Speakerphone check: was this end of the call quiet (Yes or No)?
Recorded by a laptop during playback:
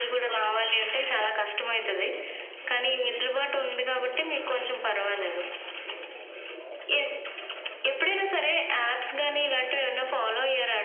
Yes